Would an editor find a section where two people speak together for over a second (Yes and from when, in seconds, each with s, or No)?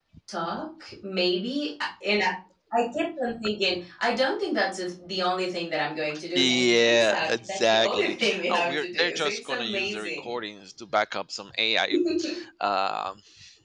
Yes, from 6.3 s